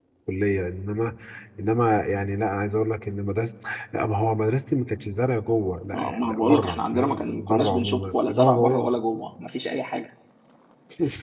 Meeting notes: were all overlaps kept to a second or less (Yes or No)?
No